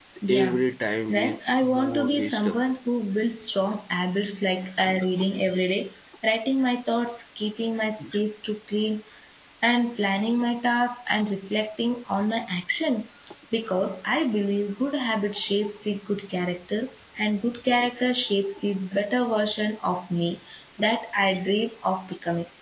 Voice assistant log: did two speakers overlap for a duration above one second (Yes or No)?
Yes